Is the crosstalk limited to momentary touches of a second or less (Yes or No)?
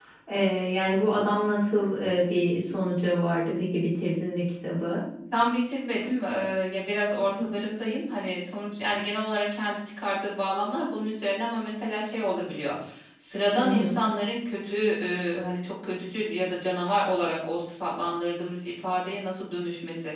Yes